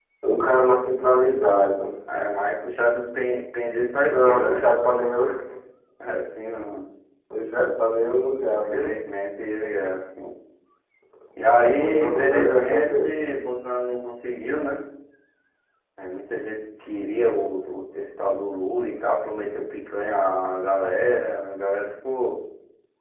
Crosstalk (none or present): present